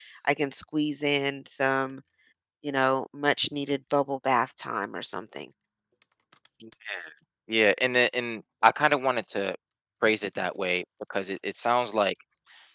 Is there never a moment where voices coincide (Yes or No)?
Yes